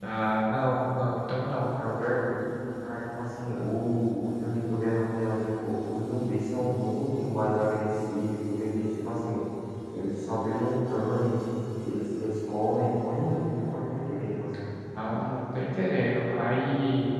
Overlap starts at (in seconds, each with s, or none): none